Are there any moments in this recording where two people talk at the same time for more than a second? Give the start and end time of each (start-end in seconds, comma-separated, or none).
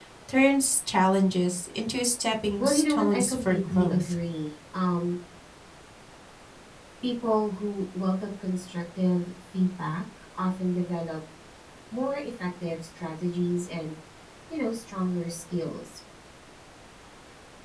2.6-4.2